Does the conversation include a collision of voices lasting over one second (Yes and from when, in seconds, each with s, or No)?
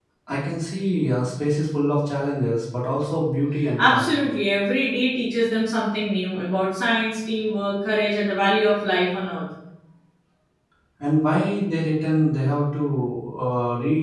No